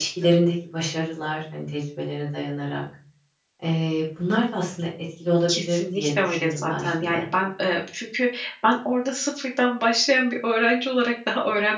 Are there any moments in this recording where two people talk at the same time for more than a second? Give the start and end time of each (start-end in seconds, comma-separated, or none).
5.5-7.2